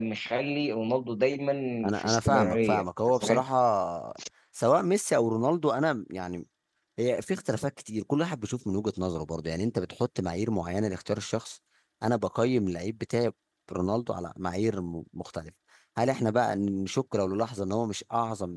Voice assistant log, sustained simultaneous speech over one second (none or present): present